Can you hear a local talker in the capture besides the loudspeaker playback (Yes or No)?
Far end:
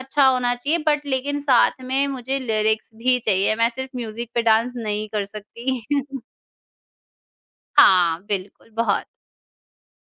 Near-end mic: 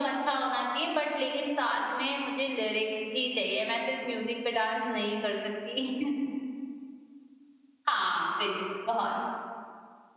No